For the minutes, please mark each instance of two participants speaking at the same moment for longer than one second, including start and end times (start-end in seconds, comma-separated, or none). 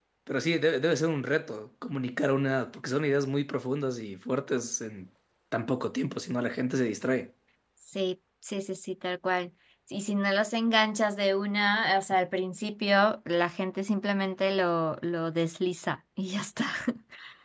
none